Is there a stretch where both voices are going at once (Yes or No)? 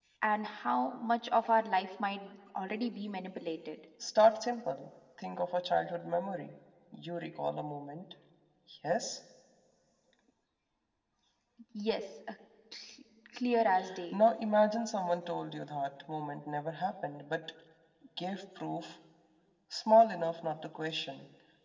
No